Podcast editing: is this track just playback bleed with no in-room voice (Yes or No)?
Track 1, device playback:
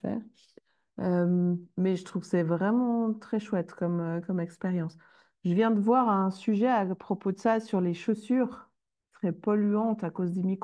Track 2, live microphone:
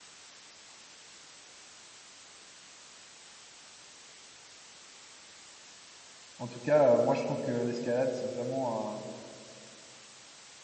No